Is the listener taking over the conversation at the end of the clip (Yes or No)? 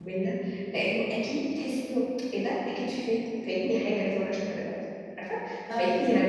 No